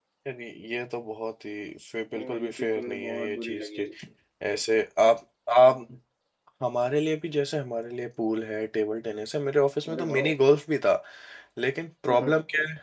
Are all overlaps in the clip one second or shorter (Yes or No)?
No